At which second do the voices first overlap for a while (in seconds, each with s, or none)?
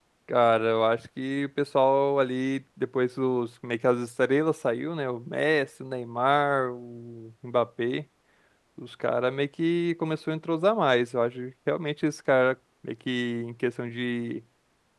none